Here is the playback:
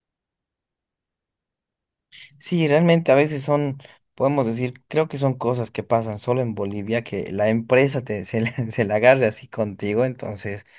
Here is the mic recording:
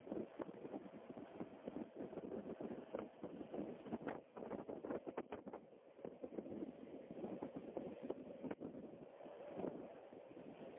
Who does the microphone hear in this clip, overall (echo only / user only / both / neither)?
neither